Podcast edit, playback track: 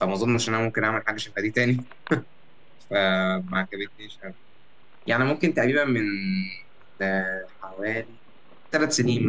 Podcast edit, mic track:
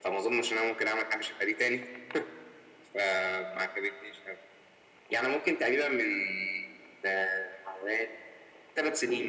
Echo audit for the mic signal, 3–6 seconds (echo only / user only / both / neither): echo only